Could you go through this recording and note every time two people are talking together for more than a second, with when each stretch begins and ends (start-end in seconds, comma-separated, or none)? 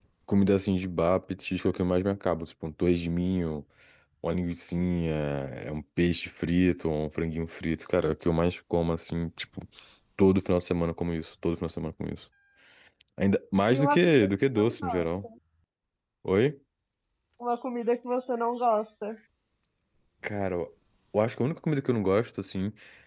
13.7-15.0